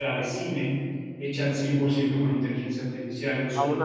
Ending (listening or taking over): taking over